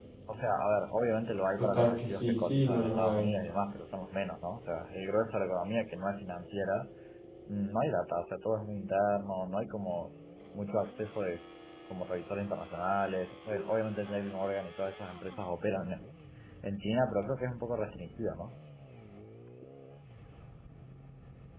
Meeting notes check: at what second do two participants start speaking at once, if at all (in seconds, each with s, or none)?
1.6 s